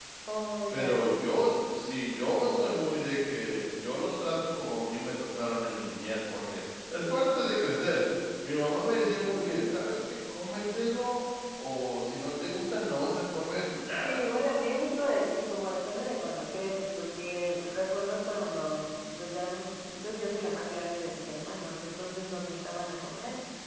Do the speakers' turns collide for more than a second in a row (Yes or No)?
No